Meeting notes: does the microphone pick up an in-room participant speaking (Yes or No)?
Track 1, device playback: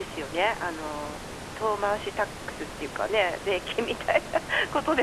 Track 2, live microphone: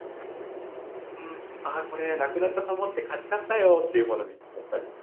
Yes